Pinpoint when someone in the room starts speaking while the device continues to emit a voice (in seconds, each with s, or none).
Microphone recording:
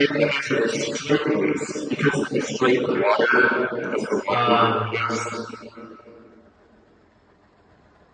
4.3 s